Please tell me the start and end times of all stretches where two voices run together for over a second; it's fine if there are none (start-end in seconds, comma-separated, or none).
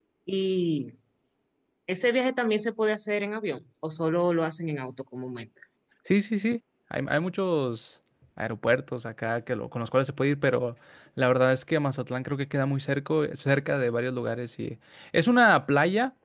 none